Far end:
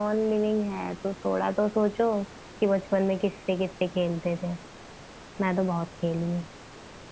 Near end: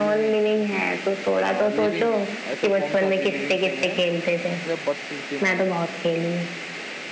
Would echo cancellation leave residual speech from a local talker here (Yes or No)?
Yes